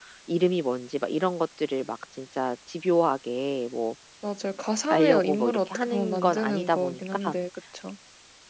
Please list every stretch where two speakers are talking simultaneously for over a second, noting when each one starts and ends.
4.9-7.3

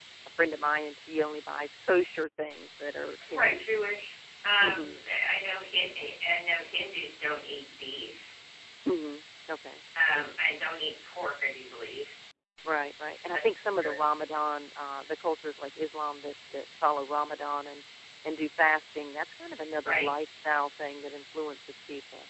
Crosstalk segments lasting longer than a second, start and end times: none

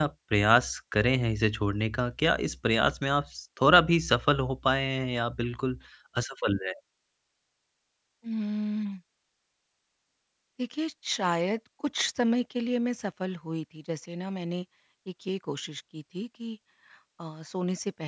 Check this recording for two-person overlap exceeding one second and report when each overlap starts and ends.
none

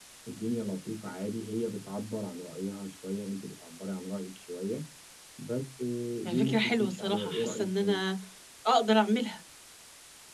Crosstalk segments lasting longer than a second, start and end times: 6.2-8.0

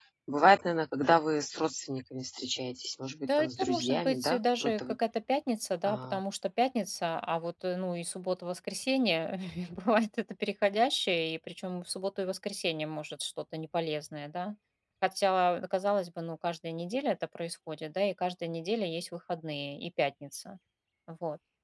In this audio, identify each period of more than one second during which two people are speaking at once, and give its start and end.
3.3-5.0

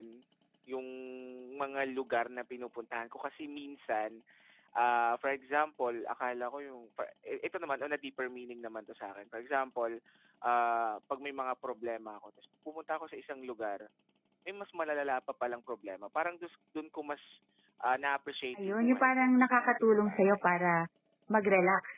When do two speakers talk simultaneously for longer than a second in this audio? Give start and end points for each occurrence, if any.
18.6-20.4

